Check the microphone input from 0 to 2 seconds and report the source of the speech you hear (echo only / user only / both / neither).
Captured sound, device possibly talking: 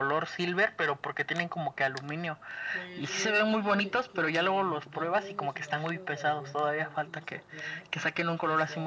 echo only